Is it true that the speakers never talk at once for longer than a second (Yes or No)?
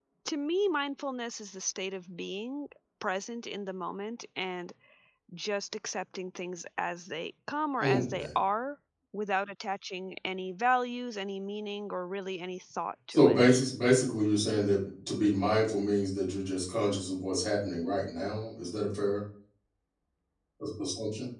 Yes